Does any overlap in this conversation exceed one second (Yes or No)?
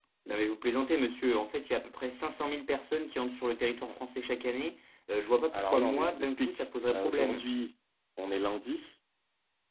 Yes